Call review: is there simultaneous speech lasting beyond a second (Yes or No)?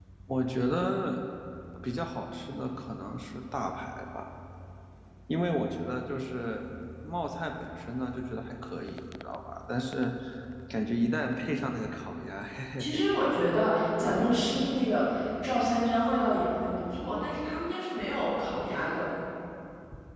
No